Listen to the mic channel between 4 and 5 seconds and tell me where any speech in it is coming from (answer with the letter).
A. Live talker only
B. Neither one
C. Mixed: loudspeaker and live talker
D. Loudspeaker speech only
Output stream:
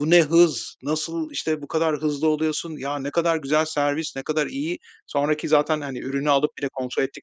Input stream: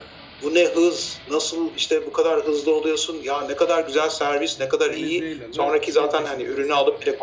C